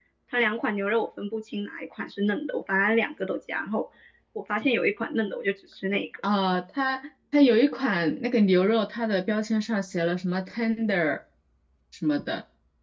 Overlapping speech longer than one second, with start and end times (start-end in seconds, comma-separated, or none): none